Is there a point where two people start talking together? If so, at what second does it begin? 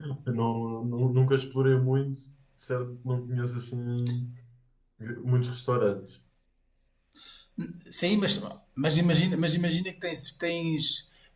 none

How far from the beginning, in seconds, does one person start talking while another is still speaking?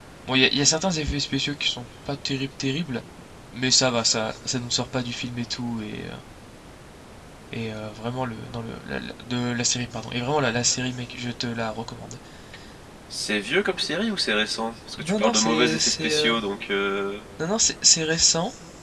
15.0 s

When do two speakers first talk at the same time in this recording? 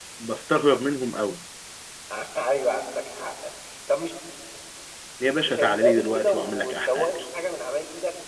5.4 s

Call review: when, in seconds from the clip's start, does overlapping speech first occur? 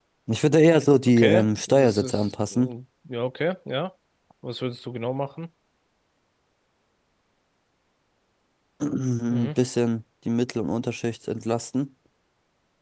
1.0 s

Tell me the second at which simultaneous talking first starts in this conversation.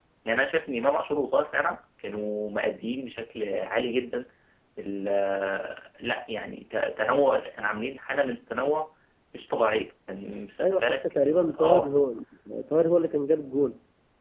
10.6 s

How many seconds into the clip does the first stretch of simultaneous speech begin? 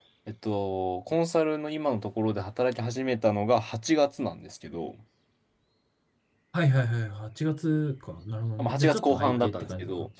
8.6 s

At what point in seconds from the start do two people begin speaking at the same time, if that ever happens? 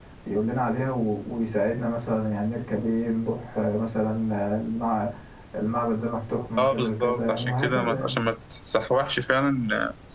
6.6 s

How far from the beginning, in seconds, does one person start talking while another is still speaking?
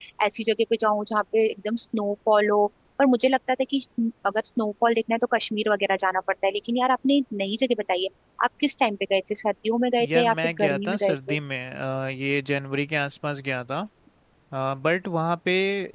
10.0 s

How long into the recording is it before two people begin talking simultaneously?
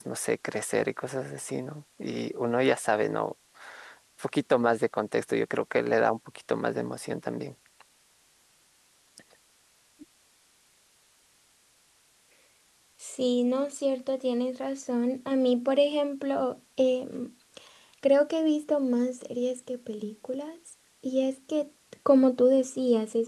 none

